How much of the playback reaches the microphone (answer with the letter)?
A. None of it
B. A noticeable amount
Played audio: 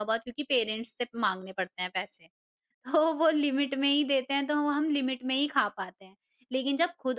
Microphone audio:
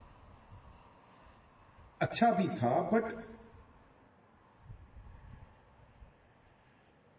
A